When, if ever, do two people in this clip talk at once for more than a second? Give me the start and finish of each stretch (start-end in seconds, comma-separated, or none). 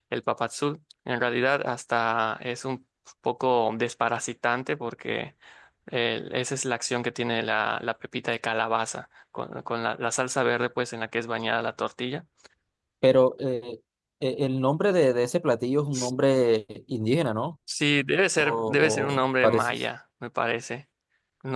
18.4-19.8